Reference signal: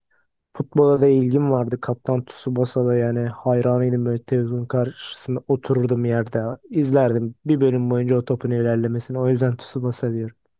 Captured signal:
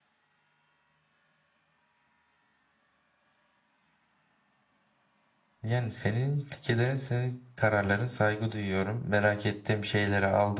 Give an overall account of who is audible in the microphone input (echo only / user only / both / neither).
user only